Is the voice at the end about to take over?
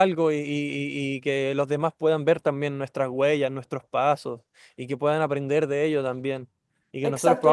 Yes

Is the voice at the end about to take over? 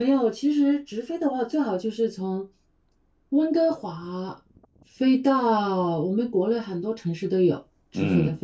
Yes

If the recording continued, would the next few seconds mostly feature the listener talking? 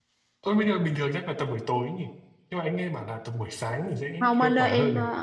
Yes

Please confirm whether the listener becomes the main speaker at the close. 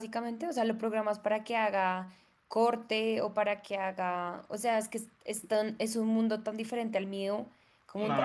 Yes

